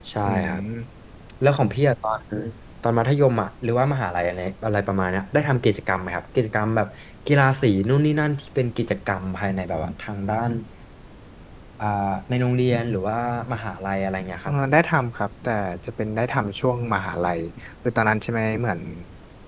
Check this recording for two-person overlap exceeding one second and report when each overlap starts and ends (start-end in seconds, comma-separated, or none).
none